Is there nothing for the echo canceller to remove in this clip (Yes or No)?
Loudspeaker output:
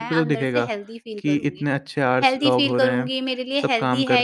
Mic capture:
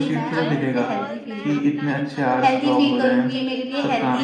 No